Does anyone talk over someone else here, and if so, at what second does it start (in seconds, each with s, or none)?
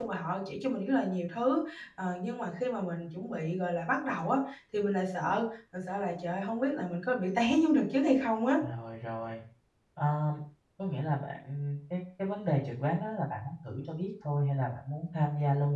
none